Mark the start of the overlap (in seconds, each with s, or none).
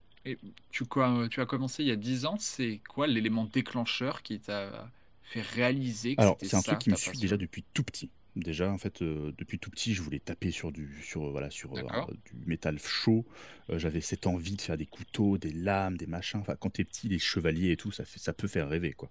6.2 s